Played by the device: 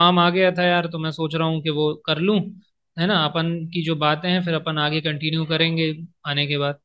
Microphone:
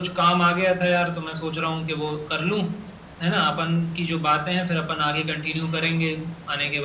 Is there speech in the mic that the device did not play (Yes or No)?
No